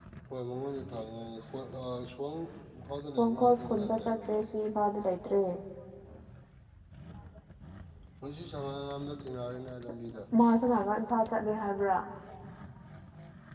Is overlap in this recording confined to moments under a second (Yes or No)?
No